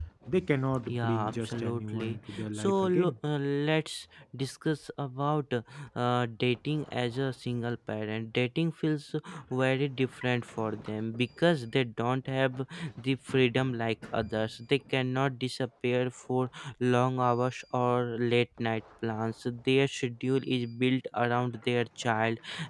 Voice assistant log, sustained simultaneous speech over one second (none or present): present